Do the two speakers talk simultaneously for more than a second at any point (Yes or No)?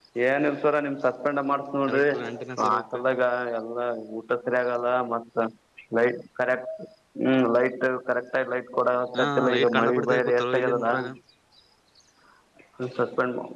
Yes